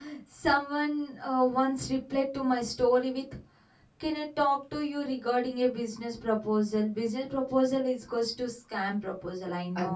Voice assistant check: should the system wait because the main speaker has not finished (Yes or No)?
No